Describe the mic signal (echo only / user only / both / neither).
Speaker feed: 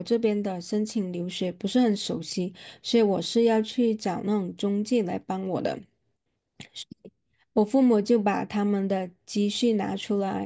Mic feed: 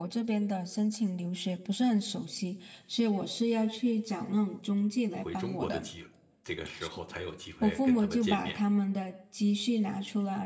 both